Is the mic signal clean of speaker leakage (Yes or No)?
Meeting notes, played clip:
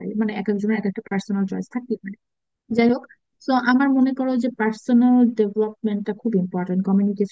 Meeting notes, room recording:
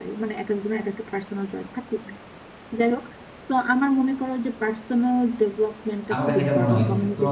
No